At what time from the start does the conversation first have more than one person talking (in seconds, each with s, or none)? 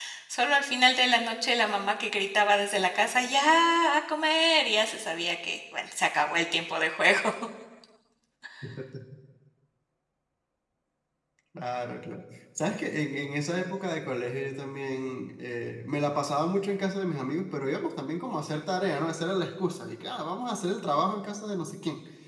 none